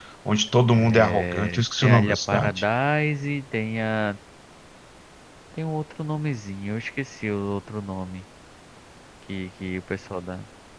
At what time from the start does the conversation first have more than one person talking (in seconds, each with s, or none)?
0.8 s